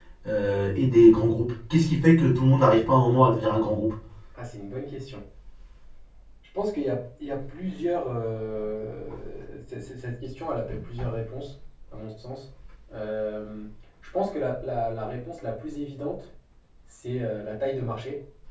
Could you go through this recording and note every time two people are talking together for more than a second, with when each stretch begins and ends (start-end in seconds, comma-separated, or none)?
none